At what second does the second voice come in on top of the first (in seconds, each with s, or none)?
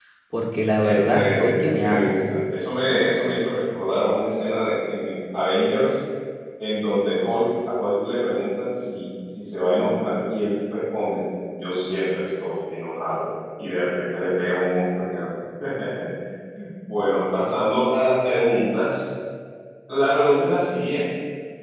0.8 s